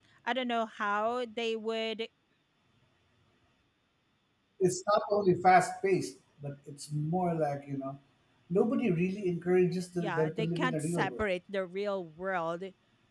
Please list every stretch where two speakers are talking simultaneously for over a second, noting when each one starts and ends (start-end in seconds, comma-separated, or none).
10.0-11.2